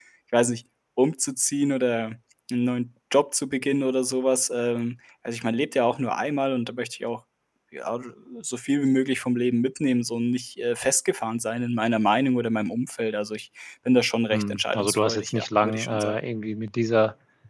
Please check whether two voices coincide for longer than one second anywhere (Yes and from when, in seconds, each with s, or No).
Yes, from 14.3 s